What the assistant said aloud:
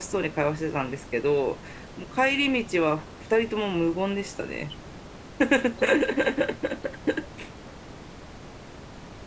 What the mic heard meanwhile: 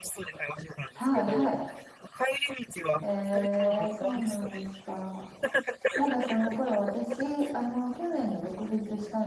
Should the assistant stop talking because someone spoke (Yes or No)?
Yes